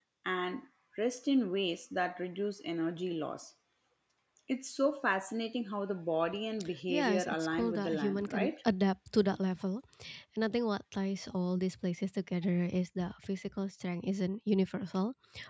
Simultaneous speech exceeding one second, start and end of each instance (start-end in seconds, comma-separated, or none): 6.9-8.5